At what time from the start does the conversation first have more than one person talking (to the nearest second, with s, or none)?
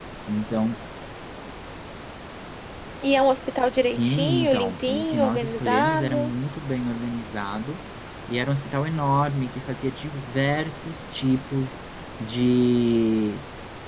4 s